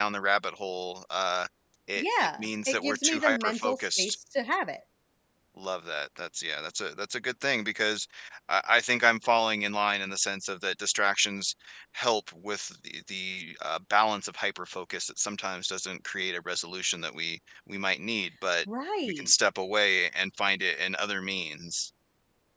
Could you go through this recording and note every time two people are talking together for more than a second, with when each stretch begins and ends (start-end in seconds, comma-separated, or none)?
2.0-4.2